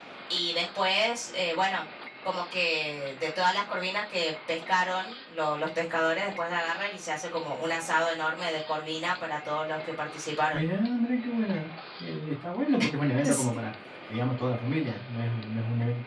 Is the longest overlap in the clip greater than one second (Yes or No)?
No